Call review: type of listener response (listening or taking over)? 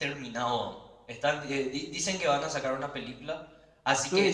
taking over